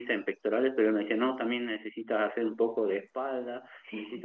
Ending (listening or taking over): listening